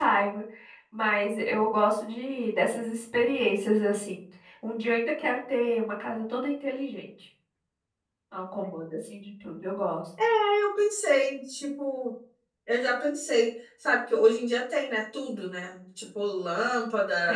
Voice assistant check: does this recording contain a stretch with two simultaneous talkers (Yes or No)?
No